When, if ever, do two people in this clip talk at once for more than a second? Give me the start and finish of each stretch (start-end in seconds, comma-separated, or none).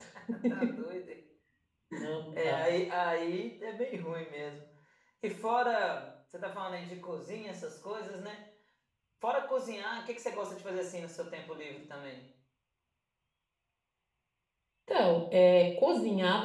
none